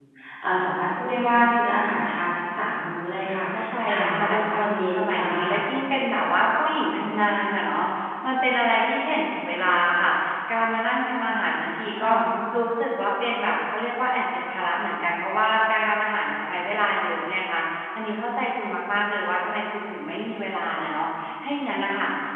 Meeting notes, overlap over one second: present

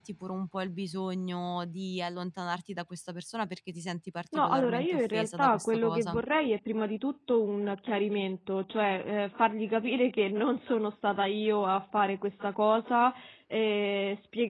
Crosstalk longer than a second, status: present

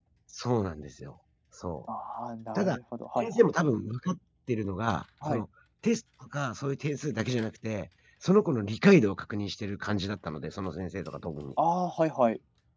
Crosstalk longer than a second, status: none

